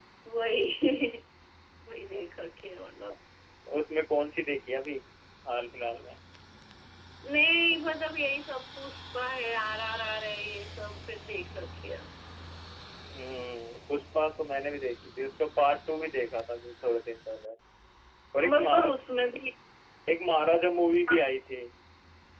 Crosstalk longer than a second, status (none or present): none